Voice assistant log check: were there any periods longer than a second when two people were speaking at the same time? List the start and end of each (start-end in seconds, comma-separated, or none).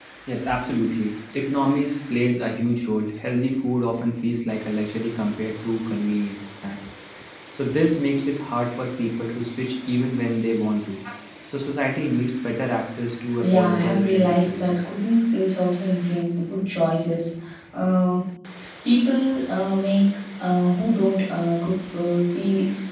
13.4-14.8